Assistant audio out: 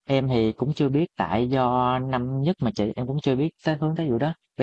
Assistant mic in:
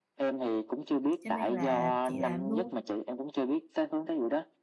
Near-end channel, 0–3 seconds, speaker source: both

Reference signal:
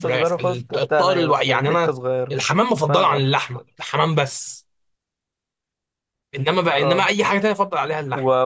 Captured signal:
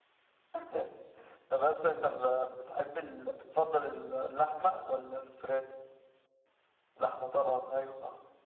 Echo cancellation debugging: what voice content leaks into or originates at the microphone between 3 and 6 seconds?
user only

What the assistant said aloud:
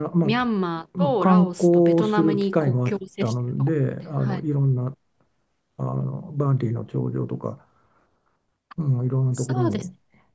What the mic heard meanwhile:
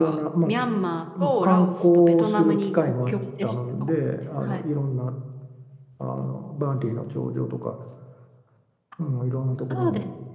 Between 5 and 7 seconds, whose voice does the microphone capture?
echo only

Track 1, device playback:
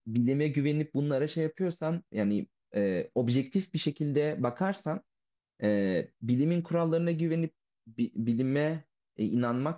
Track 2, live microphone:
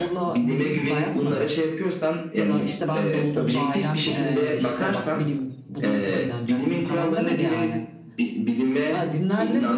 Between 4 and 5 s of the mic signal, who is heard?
both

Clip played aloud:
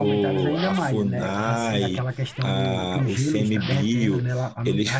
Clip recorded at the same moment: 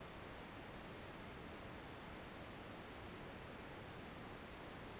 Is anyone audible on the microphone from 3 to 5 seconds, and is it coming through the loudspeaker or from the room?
neither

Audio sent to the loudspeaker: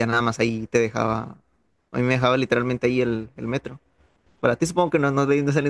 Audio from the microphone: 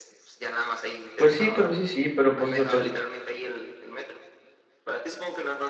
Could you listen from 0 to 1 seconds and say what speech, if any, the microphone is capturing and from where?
echo only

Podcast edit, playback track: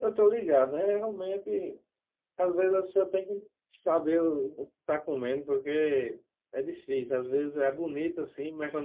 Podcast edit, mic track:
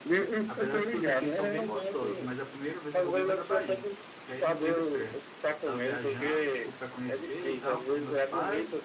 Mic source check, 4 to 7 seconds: both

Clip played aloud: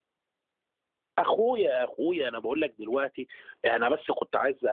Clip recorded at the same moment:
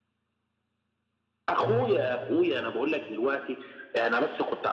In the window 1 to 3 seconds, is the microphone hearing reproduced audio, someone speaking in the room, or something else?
both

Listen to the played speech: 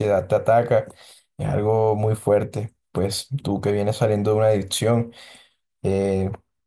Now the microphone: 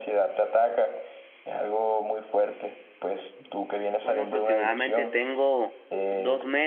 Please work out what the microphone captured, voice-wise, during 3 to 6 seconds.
both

